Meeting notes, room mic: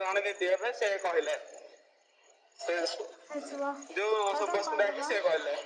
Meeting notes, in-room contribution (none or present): present